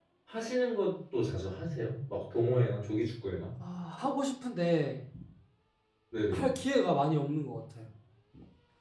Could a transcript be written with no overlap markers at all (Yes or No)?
Yes